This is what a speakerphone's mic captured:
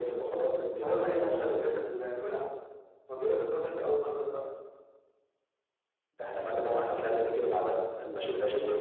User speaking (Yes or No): No